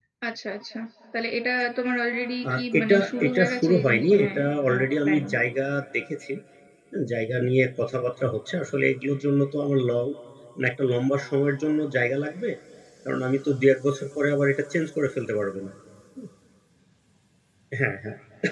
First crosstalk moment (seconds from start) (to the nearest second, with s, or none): 2 s